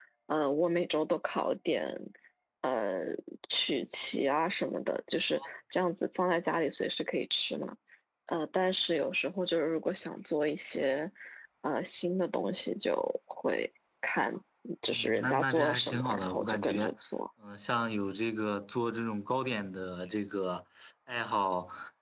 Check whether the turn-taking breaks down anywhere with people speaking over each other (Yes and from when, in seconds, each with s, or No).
Yes, from 14.9 s